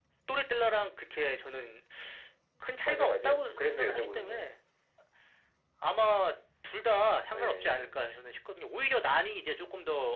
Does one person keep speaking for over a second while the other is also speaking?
Yes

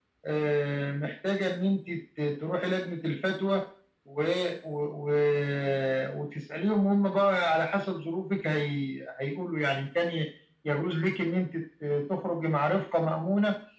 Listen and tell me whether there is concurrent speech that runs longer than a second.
No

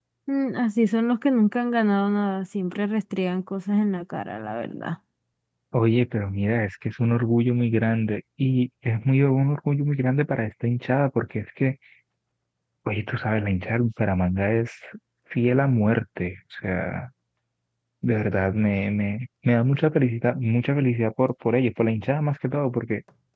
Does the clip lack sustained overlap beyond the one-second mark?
Yes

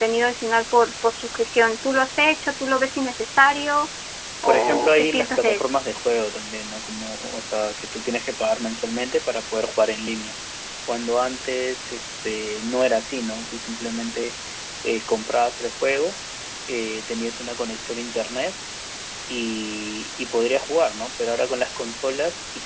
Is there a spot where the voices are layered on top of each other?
Yes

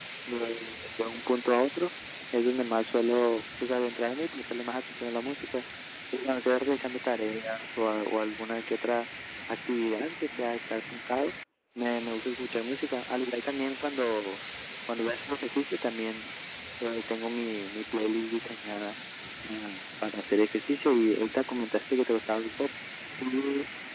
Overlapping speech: No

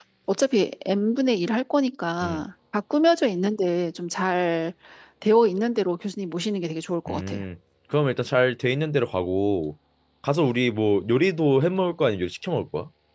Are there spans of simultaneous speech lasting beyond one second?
No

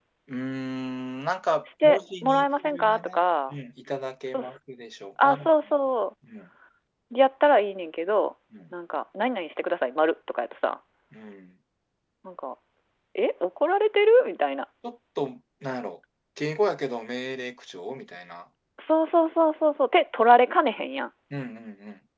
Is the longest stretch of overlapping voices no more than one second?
No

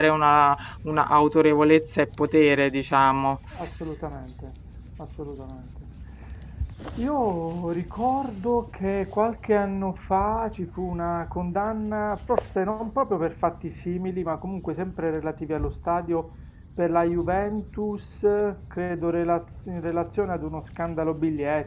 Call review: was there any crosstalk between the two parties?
No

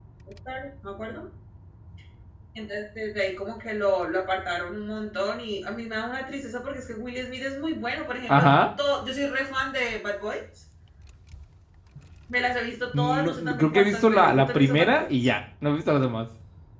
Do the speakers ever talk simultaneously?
Yes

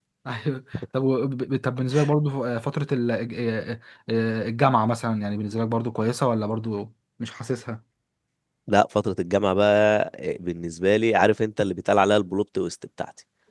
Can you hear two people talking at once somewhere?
No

